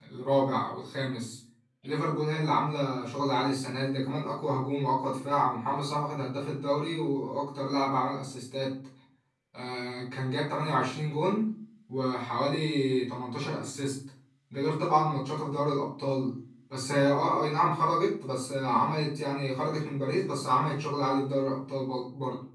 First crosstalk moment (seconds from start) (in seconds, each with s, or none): none